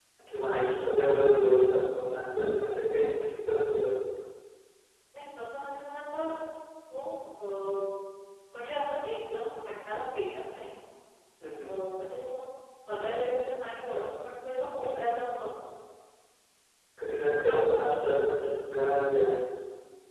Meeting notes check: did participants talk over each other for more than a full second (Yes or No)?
Yes